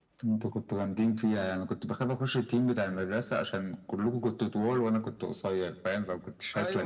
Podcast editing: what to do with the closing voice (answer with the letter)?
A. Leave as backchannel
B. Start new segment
B